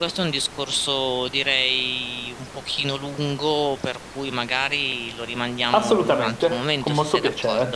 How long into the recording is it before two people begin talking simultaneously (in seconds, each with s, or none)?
5.7 s